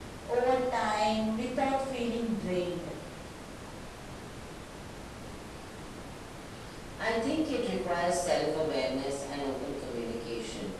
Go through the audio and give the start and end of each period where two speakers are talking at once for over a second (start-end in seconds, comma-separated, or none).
none